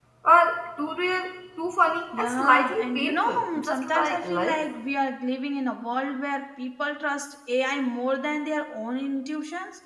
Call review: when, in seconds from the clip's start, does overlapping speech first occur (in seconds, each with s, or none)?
2.1 s